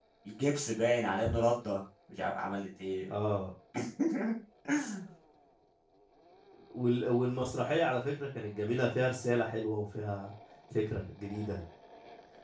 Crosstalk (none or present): none